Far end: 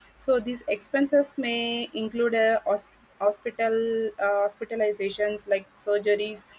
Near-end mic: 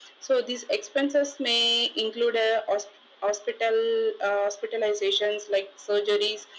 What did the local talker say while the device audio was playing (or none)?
none